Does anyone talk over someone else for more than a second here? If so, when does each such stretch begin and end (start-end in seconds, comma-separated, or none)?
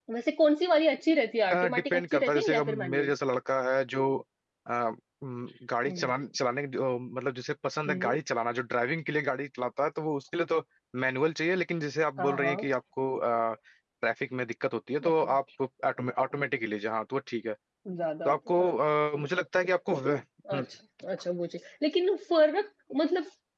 1.7-3.1